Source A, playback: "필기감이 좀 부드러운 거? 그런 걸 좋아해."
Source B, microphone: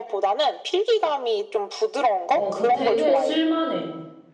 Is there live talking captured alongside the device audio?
Yes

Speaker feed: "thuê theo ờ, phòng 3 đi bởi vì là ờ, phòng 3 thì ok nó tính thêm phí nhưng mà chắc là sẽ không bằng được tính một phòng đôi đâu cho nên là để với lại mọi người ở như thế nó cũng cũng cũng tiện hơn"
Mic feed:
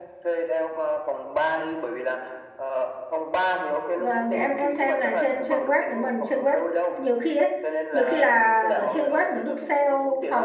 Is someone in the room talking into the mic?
Yes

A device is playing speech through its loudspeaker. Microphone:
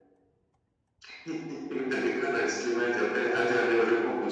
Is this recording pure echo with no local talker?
Yes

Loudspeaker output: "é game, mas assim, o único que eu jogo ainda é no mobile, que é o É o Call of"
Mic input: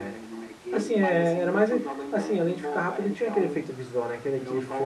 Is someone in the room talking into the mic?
Yes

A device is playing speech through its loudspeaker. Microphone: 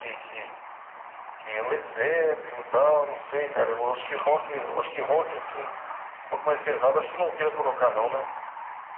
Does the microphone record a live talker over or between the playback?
No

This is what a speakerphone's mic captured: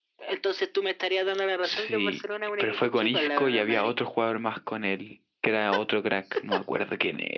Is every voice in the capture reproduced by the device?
No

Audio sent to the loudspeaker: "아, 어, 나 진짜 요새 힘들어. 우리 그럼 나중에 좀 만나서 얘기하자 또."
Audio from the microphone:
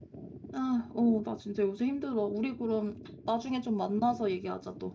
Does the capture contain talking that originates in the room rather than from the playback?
No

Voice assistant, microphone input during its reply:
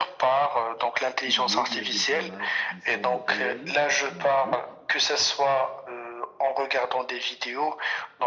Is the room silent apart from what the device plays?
No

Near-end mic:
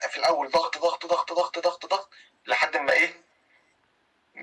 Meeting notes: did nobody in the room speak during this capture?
Yes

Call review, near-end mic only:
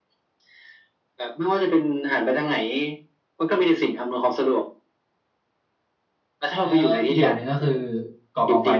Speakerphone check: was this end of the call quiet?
No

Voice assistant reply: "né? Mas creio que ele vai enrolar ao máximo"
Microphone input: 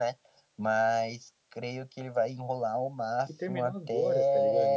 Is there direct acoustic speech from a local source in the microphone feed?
Yes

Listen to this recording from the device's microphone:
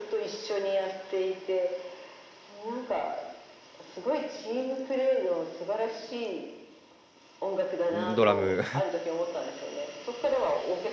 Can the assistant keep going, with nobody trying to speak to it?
No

